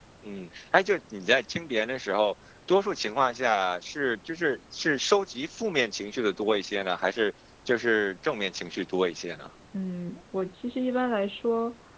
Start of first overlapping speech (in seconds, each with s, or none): none